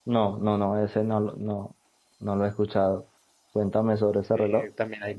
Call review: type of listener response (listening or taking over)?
taking over